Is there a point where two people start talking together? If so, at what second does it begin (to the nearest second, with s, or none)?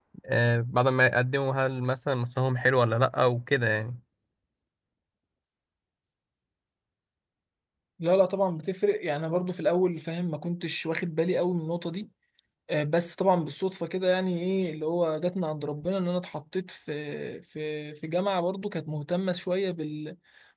none